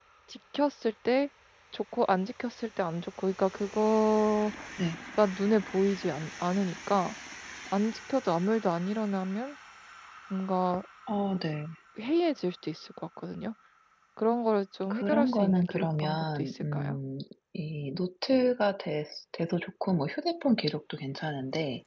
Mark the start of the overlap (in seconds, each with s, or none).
14.9 s